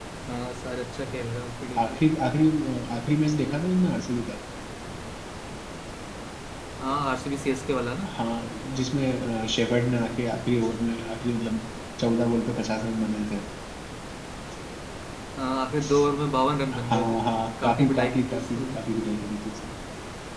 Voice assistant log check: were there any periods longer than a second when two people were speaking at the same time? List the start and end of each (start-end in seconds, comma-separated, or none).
17.6-18.9